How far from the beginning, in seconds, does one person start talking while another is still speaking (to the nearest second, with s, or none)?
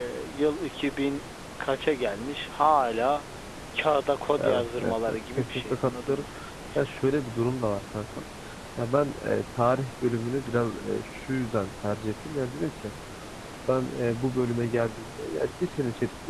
4 s